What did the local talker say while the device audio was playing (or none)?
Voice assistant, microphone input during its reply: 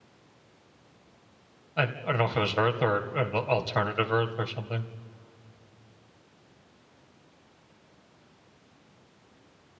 I, I don't know if it was Earth or an al- alternative Earth or something.